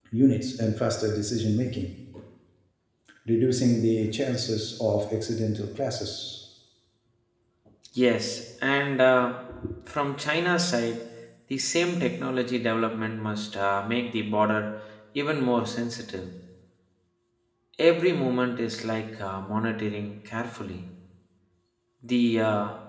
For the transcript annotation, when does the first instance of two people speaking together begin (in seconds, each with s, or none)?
none